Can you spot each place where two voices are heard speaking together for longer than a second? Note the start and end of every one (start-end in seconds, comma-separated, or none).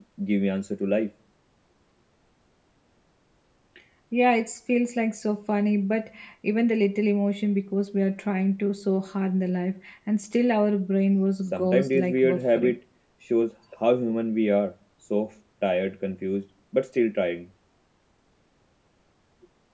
11.4-12.8